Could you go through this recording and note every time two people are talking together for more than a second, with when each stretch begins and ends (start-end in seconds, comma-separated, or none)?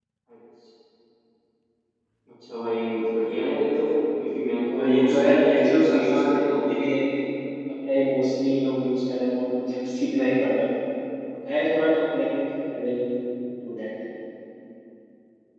4.7-6.6